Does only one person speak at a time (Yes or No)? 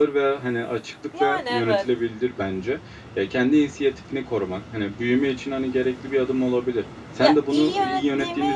No